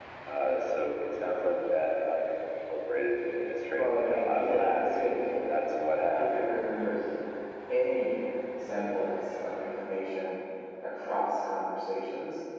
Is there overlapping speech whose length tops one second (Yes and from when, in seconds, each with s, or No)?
Yes, from 3.7 s